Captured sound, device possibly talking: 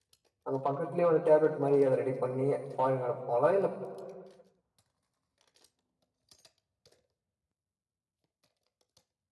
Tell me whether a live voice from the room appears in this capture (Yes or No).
Yes